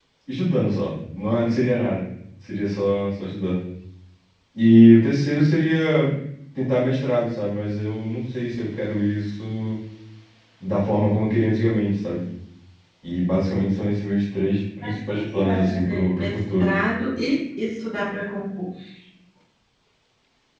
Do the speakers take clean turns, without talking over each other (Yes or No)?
No